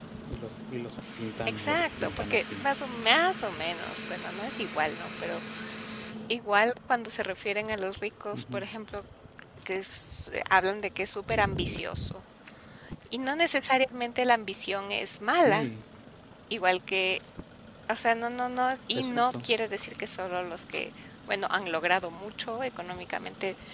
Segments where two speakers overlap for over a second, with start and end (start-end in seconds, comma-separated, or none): 1.5-2.7